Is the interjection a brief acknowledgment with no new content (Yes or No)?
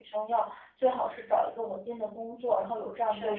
Yes